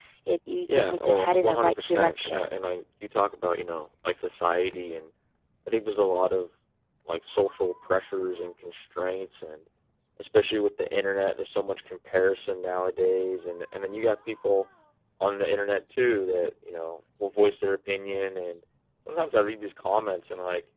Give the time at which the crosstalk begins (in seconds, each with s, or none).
0.7 s